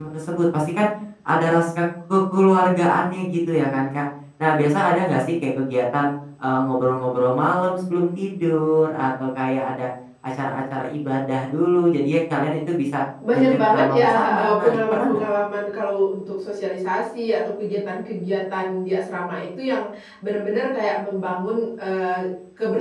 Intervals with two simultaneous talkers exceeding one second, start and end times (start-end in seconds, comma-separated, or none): 13.3-15.2